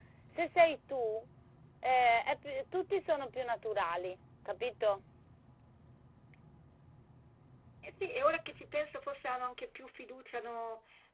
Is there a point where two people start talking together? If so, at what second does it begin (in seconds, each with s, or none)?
none